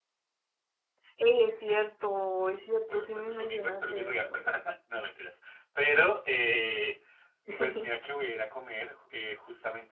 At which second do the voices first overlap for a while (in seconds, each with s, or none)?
2.8 s